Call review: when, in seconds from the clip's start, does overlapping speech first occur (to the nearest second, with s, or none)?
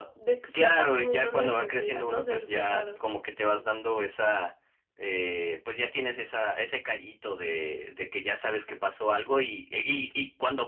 1 s